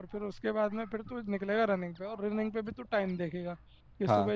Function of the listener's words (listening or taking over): listening